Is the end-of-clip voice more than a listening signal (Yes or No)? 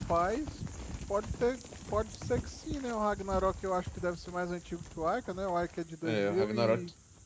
Yes